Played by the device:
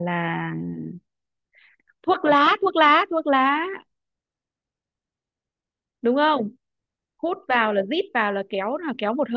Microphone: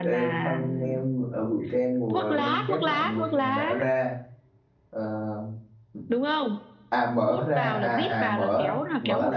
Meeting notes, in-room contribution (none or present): present